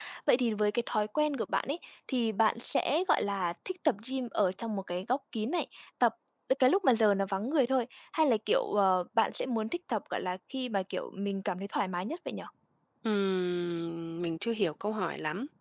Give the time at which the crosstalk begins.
none

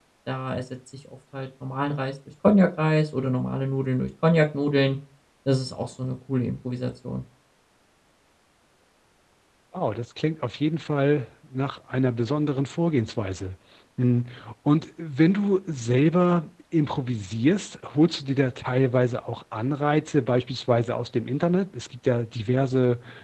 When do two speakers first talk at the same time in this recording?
none

